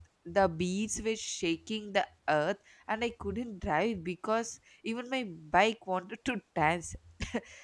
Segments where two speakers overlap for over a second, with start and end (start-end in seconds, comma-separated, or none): none